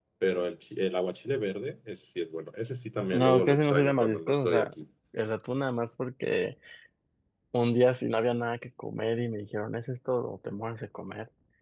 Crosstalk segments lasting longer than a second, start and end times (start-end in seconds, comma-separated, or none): 3.1-4.7